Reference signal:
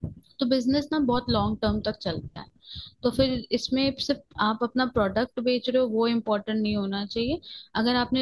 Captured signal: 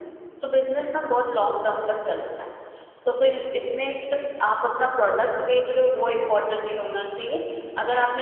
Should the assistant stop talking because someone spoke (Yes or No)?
No